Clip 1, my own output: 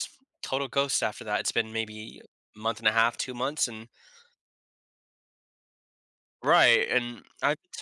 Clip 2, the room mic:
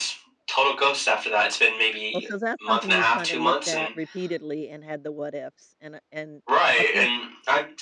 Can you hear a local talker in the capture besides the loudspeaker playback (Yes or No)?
Yes